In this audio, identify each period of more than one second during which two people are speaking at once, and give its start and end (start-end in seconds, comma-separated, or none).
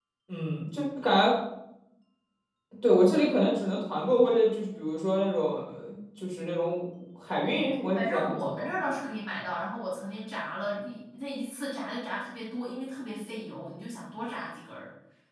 7.4-8.8